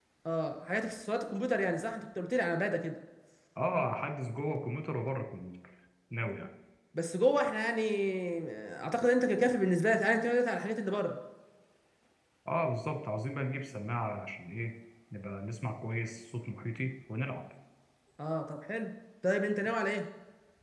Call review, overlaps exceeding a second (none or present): none